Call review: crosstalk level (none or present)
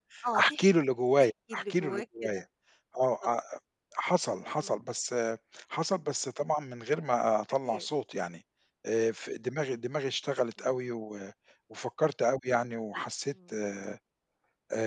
present